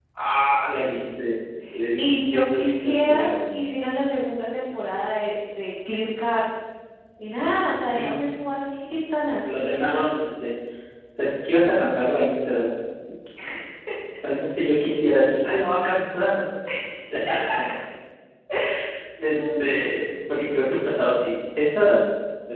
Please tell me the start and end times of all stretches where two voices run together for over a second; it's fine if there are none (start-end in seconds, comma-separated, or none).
2.0-3.5